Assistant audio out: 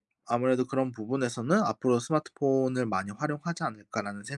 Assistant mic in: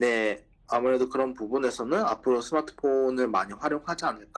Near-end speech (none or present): none